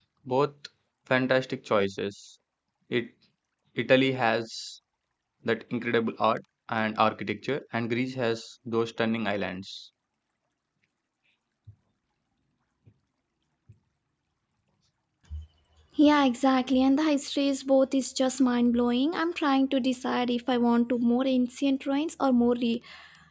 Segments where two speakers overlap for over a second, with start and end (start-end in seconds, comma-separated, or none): none